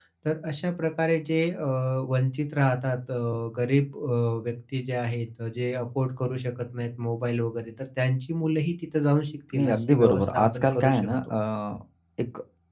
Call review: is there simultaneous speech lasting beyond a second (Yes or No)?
Yes